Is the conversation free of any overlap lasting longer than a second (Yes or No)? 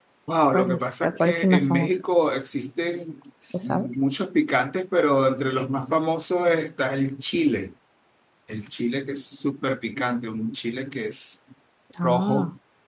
No